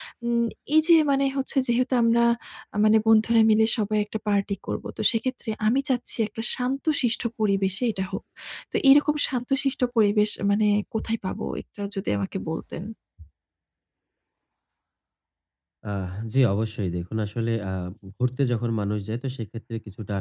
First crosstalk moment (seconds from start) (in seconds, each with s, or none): none